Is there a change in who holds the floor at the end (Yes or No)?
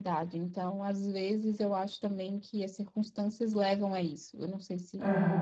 Yes